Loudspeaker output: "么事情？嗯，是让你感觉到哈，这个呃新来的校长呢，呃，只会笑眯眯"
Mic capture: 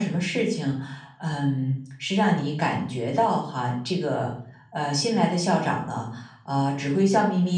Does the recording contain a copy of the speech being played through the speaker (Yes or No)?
Yes